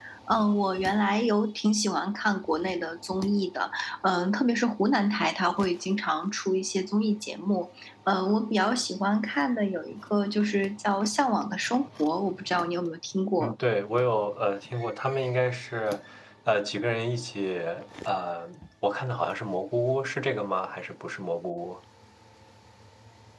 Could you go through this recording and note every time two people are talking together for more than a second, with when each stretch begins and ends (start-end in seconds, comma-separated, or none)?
none